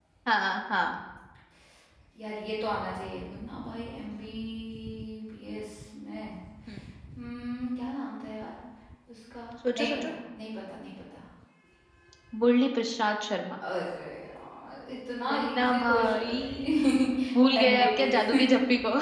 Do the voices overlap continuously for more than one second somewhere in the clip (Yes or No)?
Yes